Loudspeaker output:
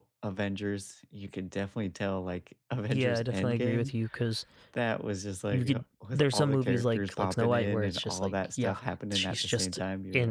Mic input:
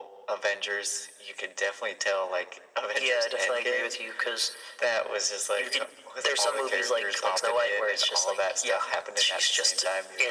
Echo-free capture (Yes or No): No